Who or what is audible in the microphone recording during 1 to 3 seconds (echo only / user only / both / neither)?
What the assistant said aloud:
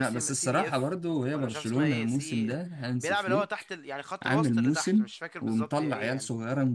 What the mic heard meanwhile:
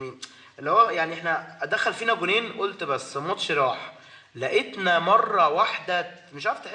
user only